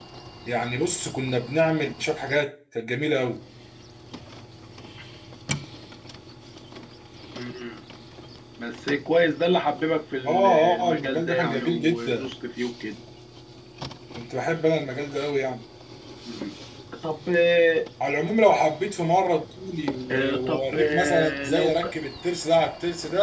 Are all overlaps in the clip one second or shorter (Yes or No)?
No